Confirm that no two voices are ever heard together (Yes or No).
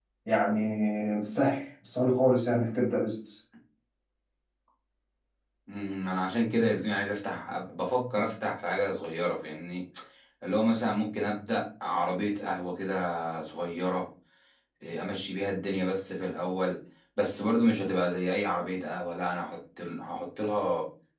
Yes